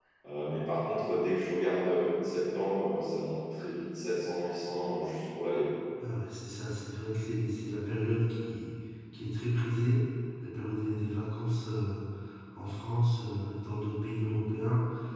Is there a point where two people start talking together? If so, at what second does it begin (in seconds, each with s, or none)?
none